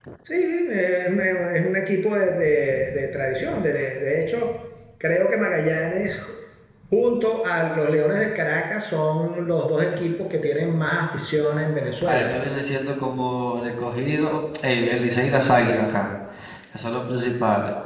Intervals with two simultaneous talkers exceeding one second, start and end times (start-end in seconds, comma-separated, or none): none